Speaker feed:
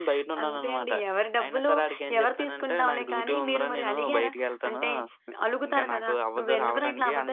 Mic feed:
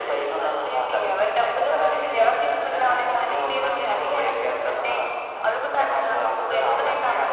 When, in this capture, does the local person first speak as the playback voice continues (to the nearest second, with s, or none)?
none